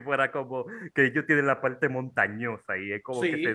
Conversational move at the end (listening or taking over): taking over